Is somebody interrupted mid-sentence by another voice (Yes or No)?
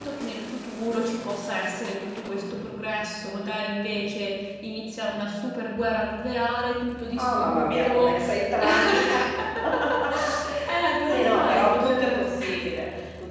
Yes